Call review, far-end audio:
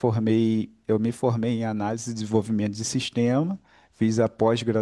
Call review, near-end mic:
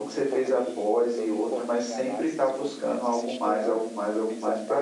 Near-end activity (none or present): present